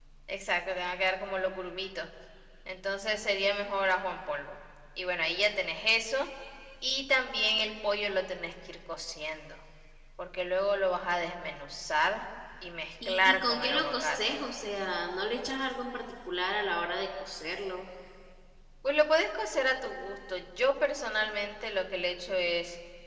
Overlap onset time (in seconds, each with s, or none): 13.0 s